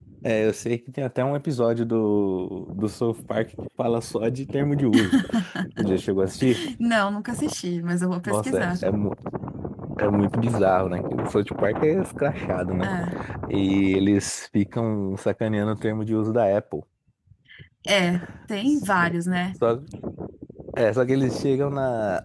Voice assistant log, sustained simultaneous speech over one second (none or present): none